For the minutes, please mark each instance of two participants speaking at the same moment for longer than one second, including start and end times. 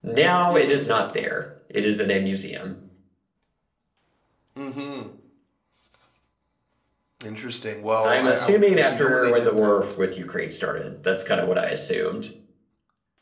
8.0-9.8

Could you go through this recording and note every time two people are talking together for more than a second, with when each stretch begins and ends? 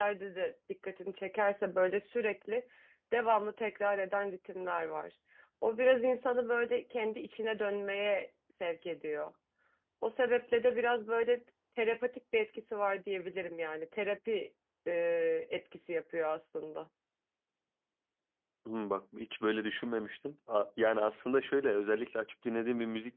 none

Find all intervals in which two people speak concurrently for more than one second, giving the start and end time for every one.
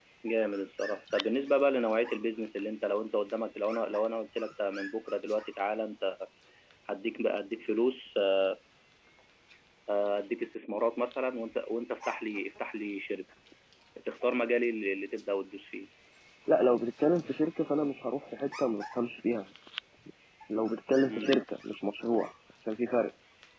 none

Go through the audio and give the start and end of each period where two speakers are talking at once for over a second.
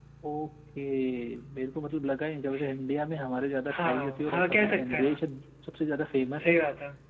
3.8-5.2

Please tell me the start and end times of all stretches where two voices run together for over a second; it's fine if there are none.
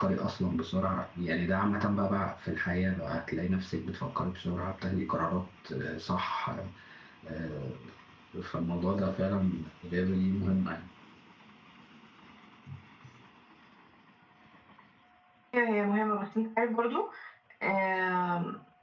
none

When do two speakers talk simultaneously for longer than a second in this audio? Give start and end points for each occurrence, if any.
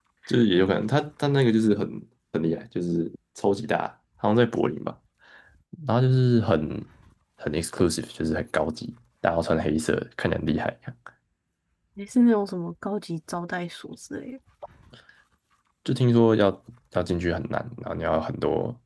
none

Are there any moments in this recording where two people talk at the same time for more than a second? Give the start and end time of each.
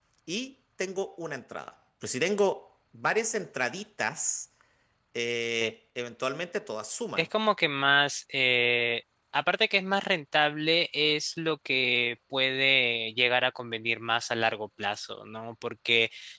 none

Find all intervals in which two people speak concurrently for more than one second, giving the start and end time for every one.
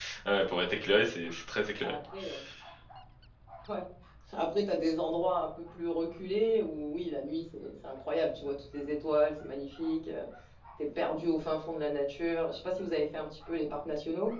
none

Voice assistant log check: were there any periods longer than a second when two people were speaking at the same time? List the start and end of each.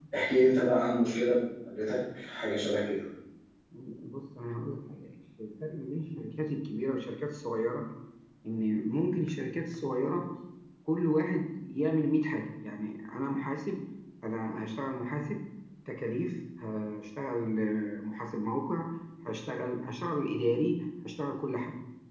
none

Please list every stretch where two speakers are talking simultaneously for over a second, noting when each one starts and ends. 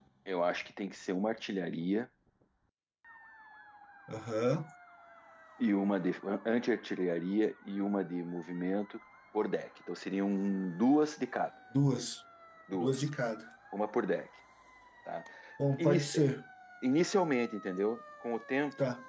none

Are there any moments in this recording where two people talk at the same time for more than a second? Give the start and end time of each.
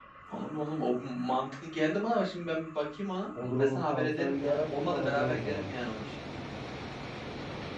3.4-5.7

